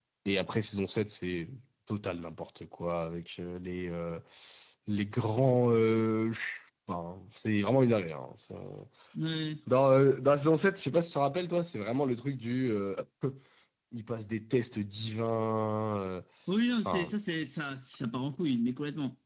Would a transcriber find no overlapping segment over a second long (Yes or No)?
Yes